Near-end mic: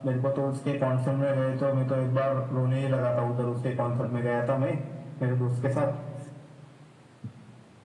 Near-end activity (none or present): none